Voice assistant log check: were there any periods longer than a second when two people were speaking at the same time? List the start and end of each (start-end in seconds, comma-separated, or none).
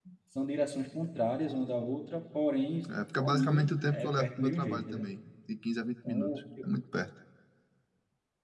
3.2-5.1